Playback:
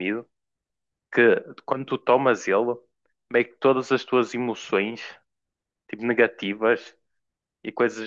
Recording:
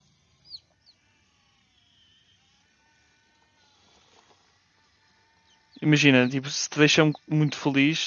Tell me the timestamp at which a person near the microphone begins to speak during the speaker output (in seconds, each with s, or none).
5.8 s